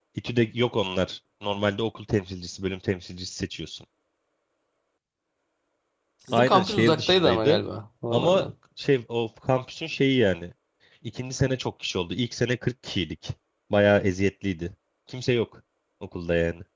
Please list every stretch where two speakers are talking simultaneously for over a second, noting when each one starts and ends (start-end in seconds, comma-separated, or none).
6.3-7.6